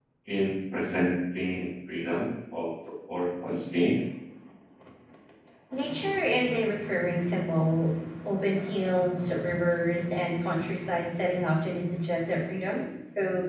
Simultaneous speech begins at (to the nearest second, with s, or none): none